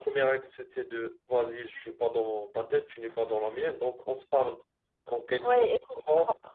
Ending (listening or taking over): taking over